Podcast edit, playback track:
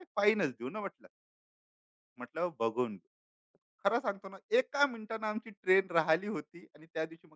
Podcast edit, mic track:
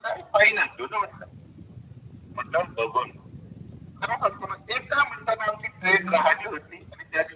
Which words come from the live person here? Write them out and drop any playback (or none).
हं, हं.